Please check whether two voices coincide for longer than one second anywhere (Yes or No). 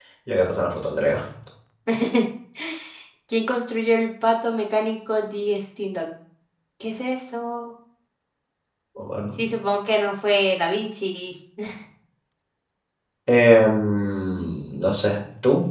No